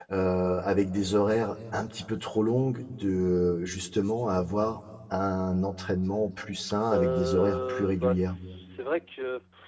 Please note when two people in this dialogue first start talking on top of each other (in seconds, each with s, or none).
6.9 s